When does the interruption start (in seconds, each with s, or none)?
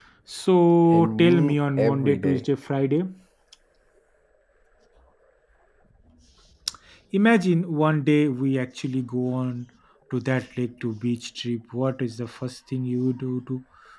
0.9 s